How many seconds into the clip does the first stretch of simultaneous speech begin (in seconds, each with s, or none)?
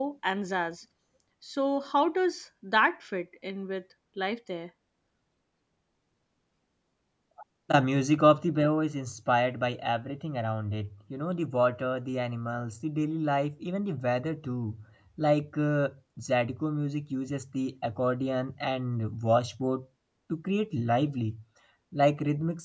none